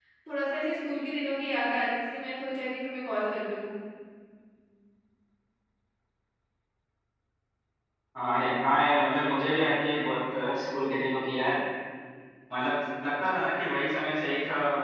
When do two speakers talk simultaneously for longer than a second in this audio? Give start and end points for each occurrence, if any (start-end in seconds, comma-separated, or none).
none